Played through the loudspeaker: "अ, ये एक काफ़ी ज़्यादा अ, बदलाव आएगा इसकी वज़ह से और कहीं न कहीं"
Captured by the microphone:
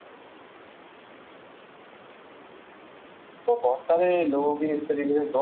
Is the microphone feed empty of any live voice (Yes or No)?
No